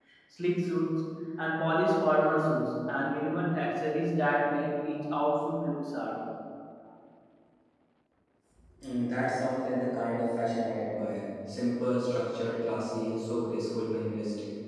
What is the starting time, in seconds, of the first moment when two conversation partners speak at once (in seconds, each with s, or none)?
none